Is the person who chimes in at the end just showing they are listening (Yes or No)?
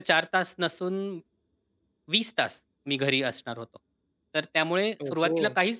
Yes